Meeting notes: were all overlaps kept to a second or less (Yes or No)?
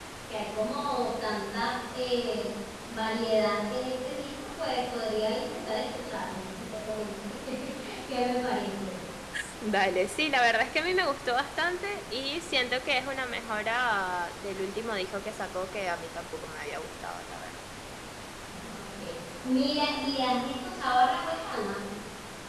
Yes